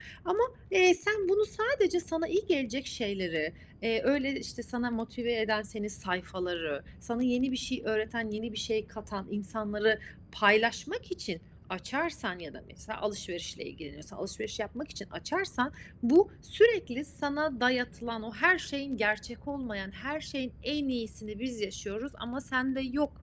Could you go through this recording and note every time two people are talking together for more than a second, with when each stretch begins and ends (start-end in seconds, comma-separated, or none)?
none